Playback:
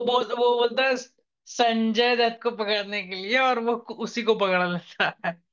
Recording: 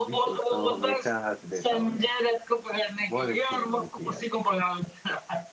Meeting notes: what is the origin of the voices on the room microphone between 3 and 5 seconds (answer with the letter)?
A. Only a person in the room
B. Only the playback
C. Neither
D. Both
D